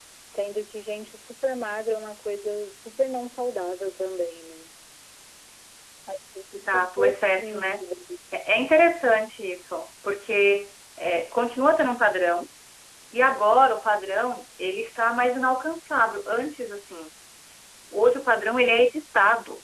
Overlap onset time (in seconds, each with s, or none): 6.6 s